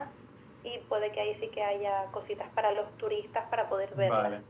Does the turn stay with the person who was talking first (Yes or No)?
No